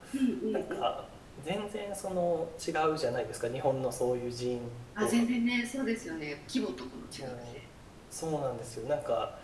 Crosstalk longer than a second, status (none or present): none